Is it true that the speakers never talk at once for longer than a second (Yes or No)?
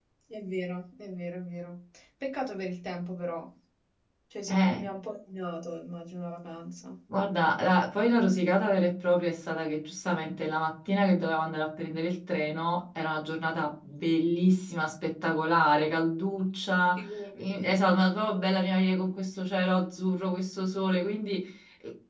Yes